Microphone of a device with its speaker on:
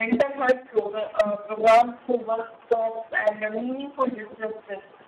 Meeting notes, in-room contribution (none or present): none